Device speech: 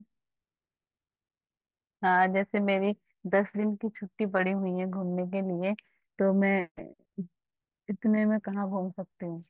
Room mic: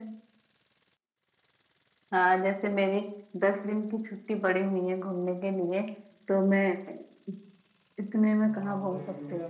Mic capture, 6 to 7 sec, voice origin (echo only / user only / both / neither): echo only